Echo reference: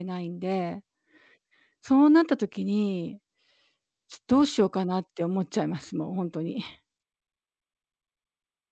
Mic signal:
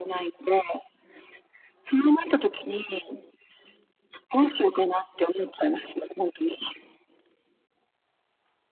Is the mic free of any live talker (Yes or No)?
Yes